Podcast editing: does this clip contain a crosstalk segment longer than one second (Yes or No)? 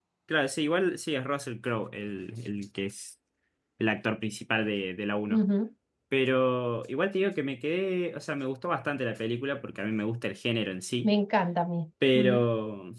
No